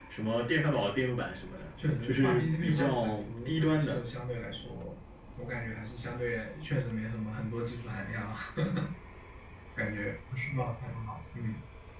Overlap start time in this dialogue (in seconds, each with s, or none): 2.0 s